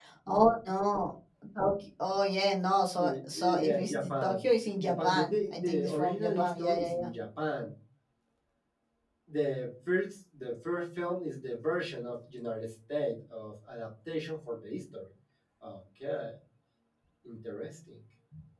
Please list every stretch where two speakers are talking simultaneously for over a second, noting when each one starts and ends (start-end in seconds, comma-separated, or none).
3.0-4.4, 4.8-7.1